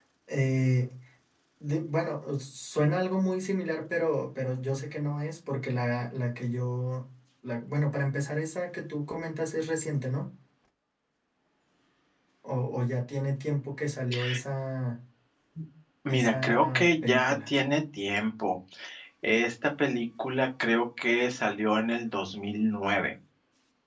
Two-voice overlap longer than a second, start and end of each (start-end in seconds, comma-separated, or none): 16.1-17.5